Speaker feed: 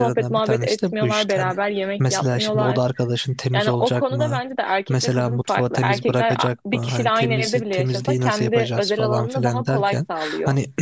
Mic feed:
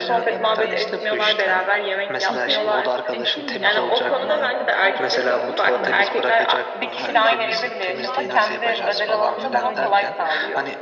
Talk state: both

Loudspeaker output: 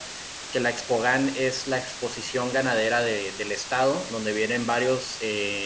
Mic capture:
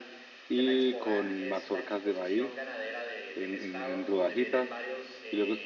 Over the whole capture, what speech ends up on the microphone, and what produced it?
both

